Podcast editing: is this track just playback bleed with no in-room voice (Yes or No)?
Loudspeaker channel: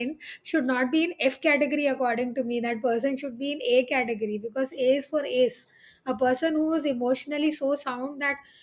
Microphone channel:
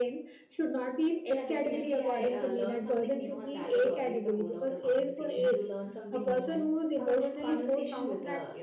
No